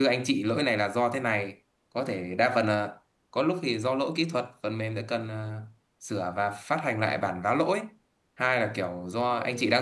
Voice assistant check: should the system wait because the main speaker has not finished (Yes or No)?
Yes